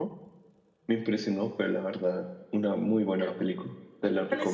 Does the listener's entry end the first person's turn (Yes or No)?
Yes